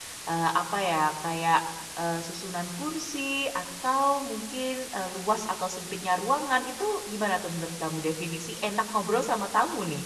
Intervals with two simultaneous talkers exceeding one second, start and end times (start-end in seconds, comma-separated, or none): none